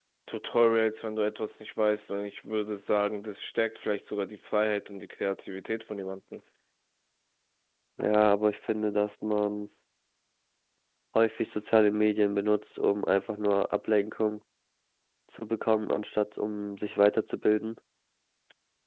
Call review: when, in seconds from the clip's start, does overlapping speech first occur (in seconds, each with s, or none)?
none